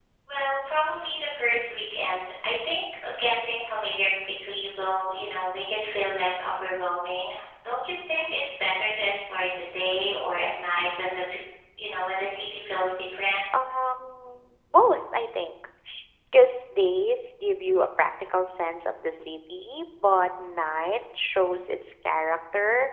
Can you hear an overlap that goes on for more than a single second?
No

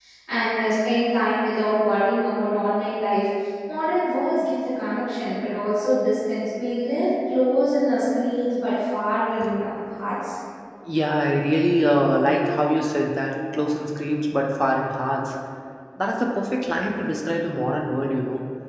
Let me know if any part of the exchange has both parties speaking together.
No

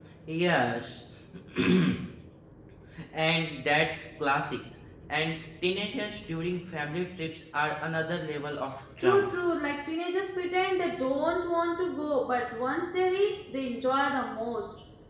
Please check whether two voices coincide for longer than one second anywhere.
No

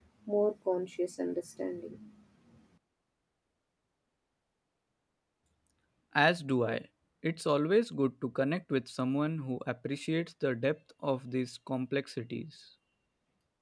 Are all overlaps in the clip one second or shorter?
Yes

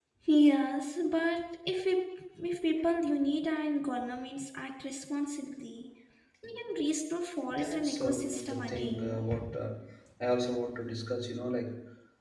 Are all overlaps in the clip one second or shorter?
No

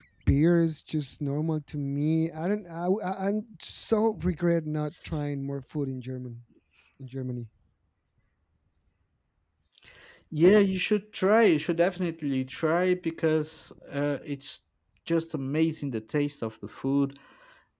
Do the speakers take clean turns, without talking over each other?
Yes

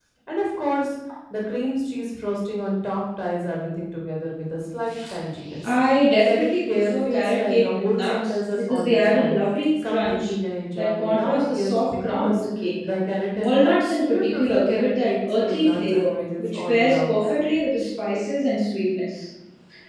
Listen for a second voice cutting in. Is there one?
Yes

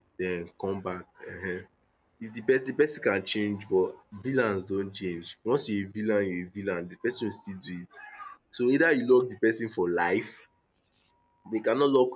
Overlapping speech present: No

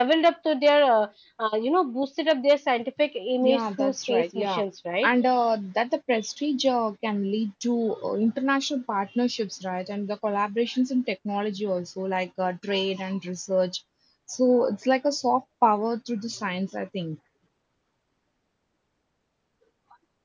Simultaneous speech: Yes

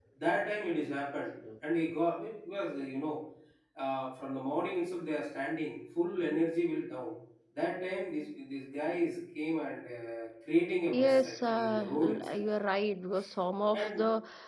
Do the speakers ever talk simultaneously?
Yes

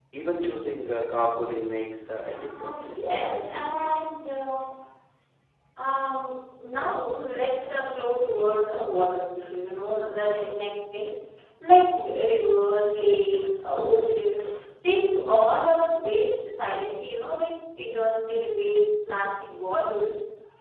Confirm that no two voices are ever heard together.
No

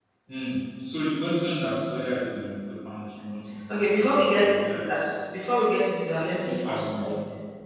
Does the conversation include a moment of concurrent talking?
Yes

